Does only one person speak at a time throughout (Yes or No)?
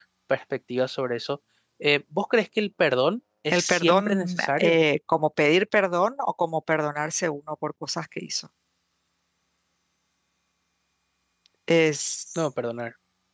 No